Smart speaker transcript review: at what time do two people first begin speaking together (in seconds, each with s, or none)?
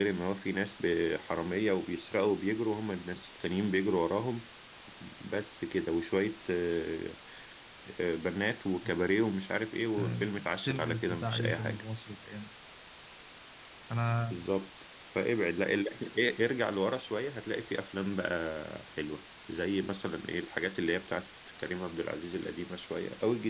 10.0 s